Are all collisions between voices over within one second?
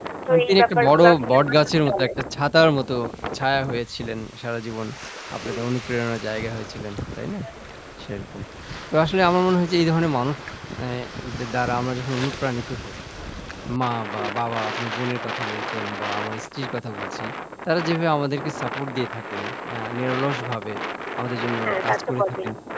No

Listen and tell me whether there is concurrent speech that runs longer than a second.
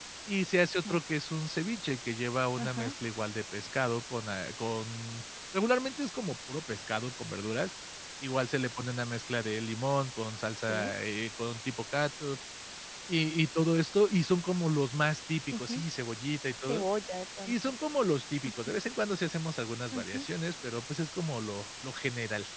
No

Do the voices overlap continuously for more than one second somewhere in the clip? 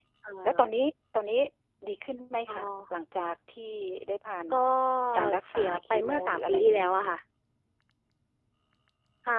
Yes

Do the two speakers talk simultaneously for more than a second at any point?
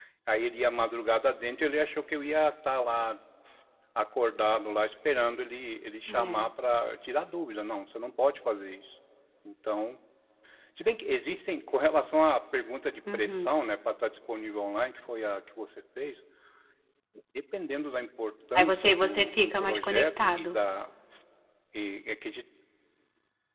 Yes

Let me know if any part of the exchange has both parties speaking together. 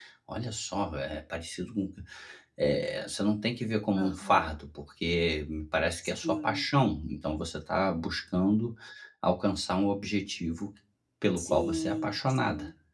Yes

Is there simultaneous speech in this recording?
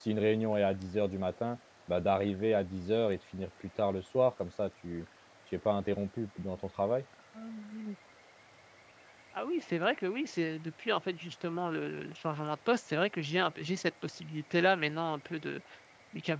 No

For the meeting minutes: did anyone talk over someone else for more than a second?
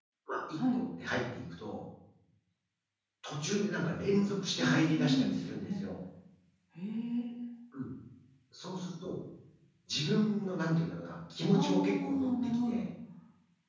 Yes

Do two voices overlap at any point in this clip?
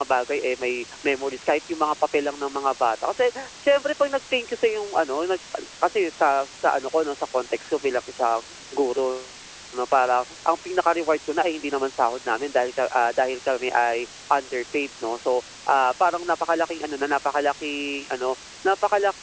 No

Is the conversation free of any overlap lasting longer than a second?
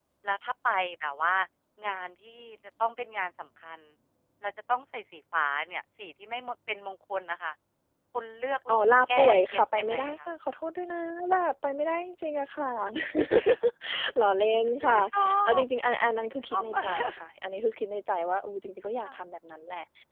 No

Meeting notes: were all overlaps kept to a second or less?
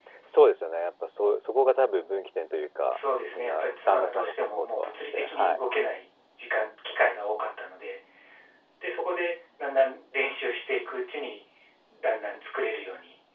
No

